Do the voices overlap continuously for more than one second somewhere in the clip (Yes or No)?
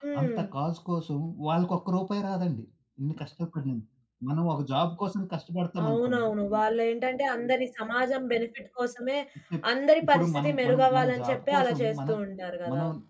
Yes